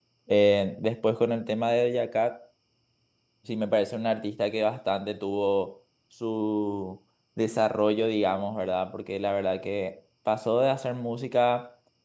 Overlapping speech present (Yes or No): No